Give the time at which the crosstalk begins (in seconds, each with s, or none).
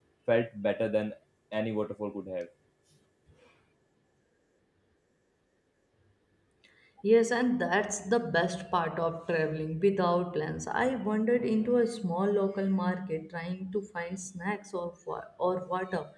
none